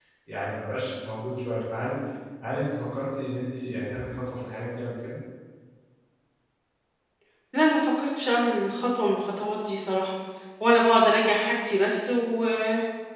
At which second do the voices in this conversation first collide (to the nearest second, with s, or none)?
none